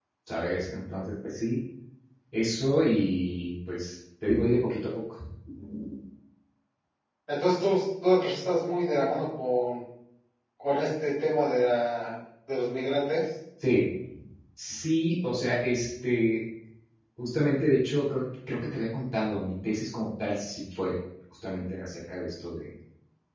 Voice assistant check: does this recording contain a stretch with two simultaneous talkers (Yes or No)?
No